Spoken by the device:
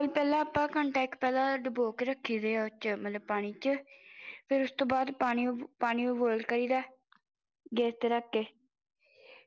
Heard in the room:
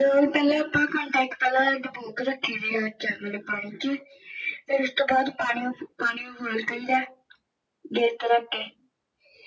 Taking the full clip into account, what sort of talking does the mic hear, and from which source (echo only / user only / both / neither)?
echo only